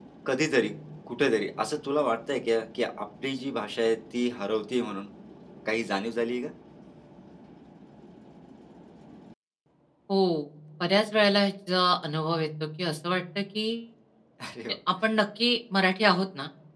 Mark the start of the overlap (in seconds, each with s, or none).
none